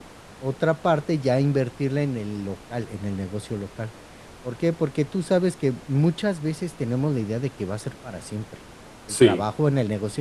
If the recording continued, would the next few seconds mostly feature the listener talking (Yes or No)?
No